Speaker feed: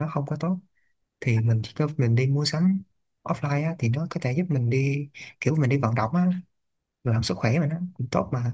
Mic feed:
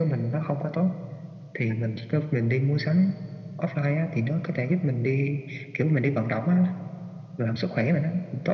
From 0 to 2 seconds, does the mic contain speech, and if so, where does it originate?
echo only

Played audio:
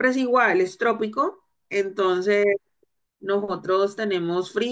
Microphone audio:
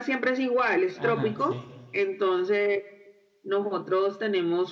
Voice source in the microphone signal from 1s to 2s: both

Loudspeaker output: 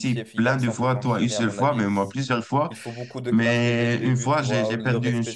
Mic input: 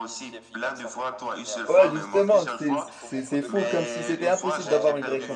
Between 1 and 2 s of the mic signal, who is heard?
both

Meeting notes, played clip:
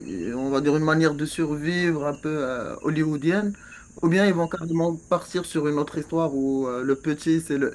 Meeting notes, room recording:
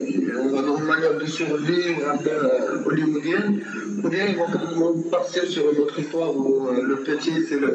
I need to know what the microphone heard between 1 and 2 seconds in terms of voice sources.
echo only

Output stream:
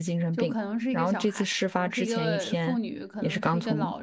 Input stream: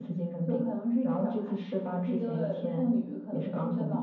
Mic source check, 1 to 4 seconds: echo only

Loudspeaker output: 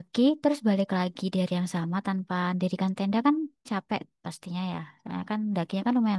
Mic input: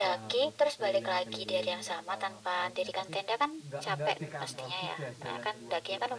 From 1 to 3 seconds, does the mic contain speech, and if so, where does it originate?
both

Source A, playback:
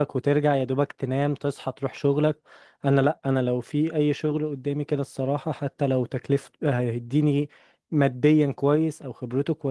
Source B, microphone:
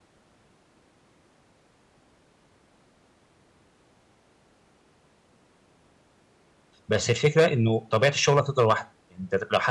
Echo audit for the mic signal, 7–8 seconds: user only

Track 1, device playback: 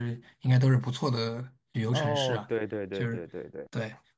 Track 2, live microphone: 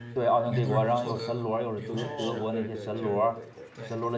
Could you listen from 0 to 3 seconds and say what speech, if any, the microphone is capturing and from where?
both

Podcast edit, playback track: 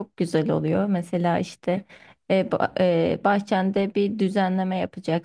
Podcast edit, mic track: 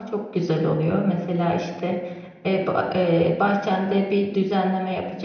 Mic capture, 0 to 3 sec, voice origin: echo only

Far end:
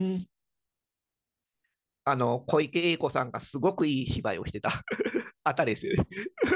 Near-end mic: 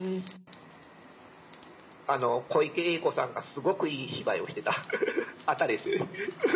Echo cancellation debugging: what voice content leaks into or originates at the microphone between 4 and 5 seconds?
echo only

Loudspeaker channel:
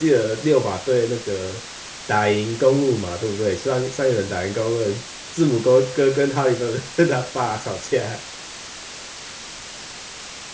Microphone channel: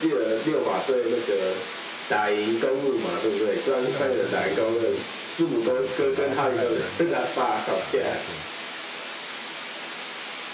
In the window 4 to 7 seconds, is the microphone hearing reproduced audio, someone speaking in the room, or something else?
both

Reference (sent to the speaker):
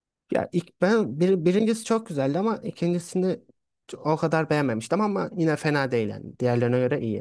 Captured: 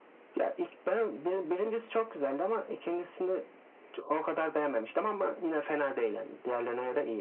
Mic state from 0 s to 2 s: echo only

